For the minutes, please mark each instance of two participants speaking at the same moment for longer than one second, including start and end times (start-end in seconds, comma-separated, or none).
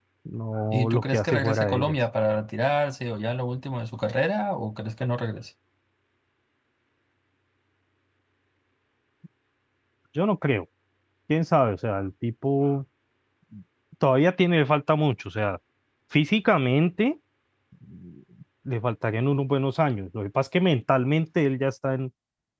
0.7-2.0